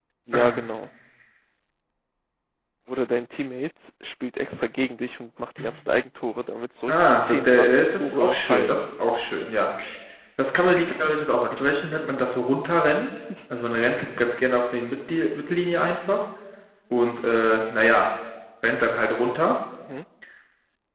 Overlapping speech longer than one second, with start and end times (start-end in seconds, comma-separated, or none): 6.9-8.8